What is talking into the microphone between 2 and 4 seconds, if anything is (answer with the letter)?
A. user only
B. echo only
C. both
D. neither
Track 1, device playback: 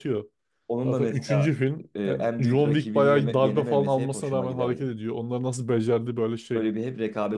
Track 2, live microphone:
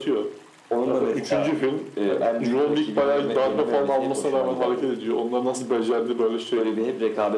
B